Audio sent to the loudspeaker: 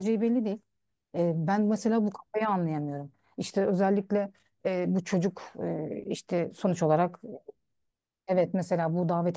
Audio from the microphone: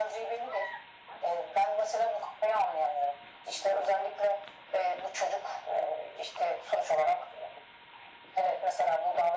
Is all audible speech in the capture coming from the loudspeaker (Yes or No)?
Yes